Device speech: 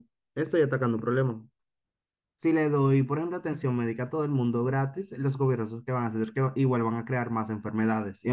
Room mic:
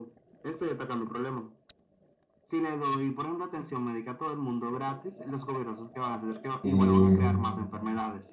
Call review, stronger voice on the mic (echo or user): user